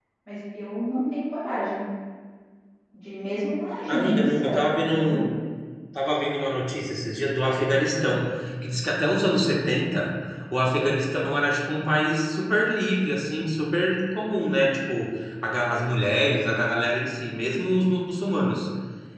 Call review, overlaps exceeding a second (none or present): present